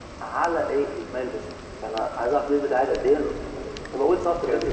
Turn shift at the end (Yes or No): Yes